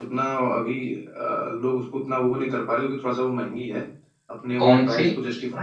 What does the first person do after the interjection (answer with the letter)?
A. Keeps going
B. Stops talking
A